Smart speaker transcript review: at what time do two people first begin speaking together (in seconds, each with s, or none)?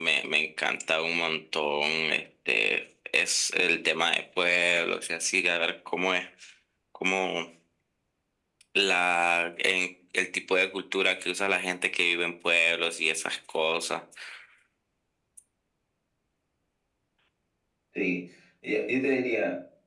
none